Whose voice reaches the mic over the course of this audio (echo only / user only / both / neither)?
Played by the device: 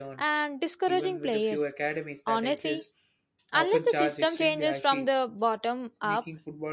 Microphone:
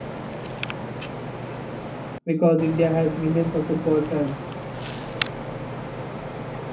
user only